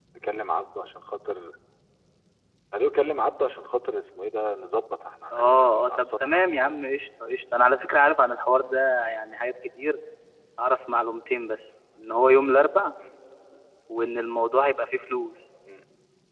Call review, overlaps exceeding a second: present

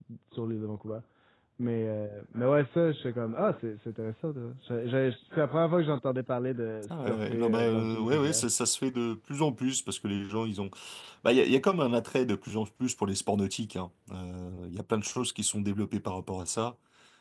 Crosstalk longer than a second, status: present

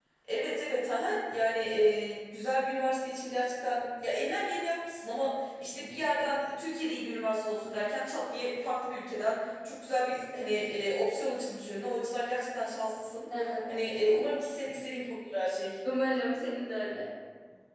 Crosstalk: none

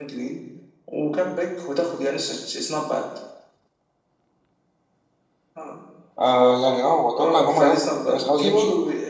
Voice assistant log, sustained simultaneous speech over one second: present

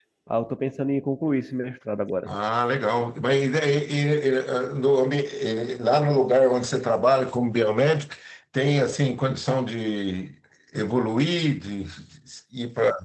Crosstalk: none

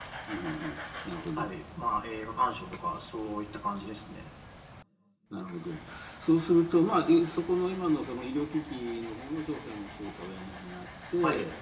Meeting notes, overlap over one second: none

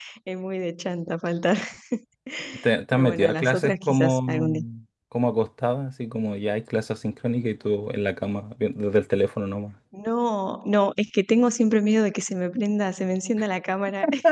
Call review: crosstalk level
present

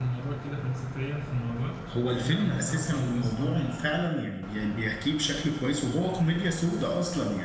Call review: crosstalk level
present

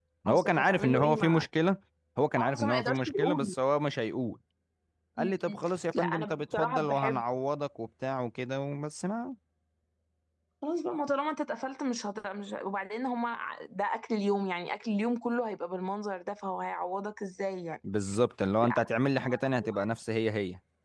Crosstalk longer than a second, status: present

